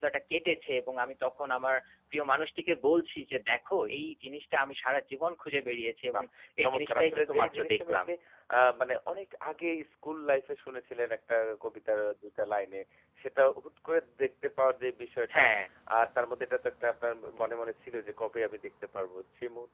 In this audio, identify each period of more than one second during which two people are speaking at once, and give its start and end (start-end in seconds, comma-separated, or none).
6.6-8.1